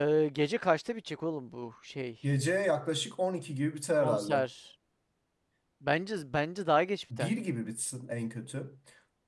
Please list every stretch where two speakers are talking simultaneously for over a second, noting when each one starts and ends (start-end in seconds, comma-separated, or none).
none